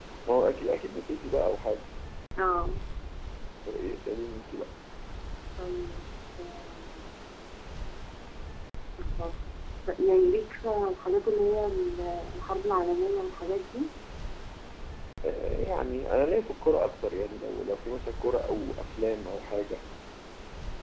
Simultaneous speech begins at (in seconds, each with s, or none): none